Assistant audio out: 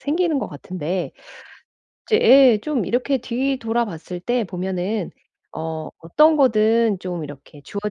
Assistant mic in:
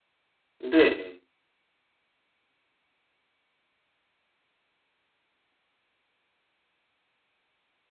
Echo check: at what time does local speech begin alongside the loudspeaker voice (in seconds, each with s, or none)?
0.6 s